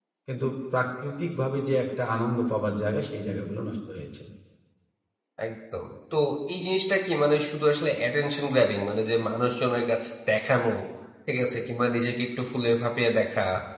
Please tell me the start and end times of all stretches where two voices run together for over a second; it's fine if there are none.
none

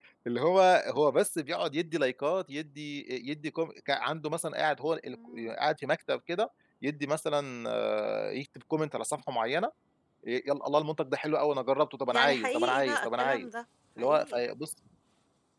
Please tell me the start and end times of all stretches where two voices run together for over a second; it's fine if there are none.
12.1-13.5

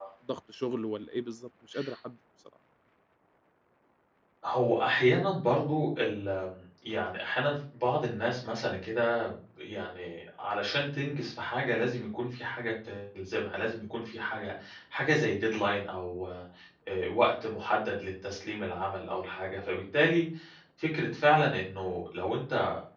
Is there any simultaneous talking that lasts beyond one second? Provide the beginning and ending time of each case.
none

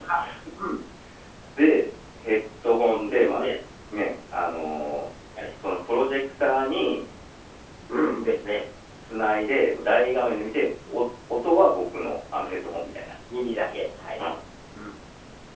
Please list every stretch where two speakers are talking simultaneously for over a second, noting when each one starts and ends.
none

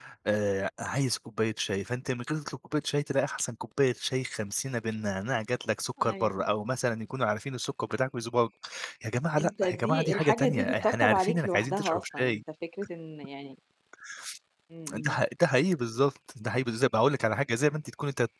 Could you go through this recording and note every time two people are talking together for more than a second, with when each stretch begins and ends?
9.4-12.4

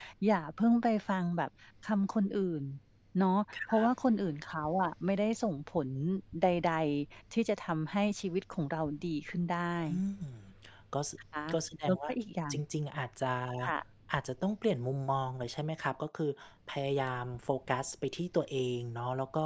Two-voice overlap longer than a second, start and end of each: none

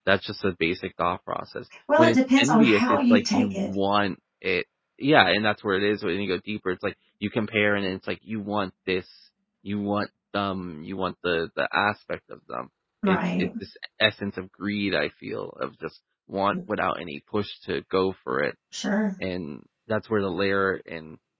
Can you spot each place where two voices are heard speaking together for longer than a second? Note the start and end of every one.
2.0-3.7

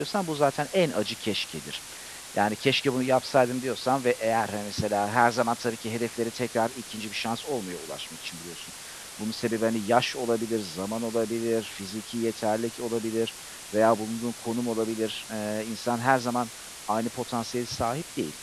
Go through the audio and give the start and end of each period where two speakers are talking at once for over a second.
none

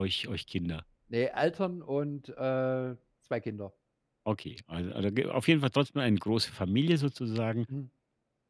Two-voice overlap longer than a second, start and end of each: none

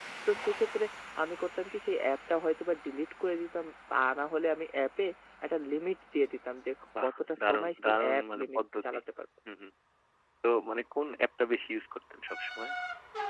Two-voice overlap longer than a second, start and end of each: 7.0-8.8

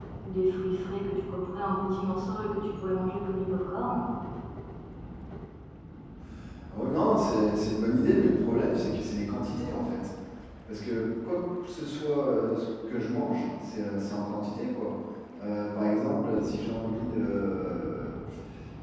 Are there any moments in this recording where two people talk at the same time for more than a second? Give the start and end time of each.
none

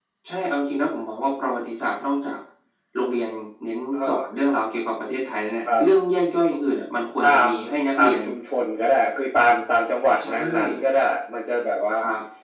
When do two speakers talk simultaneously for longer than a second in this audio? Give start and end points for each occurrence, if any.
none

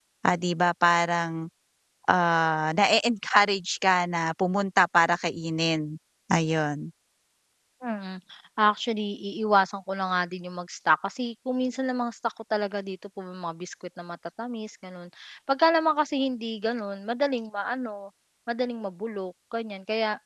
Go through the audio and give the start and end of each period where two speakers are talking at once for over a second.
none

